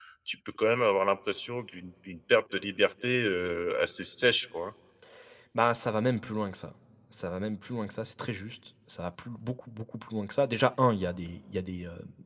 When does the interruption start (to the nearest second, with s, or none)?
none